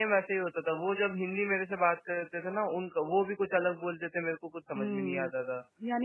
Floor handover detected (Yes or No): Yes